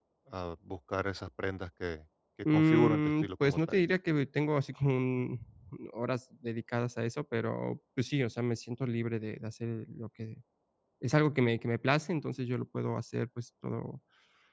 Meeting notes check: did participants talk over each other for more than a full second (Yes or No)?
Yes